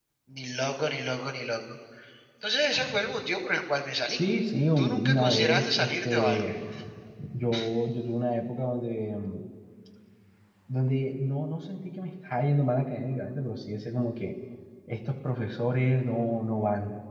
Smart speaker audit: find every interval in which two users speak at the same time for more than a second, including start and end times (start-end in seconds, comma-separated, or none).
4.8-6.5